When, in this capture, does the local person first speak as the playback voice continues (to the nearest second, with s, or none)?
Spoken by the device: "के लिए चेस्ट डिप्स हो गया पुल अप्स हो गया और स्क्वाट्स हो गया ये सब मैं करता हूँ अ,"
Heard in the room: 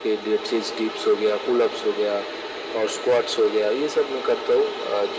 none